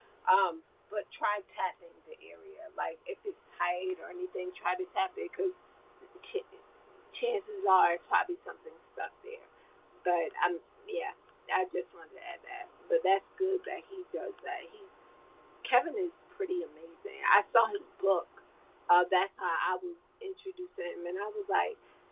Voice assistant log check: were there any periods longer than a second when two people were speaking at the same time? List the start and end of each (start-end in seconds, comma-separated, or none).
none